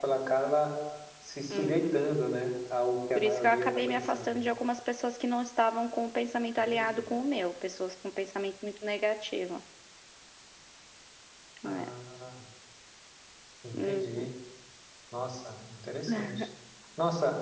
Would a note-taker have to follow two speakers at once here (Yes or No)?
Yes